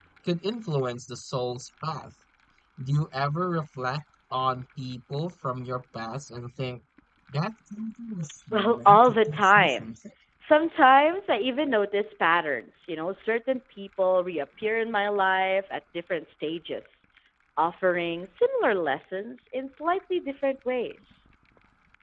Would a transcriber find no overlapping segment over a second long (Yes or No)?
No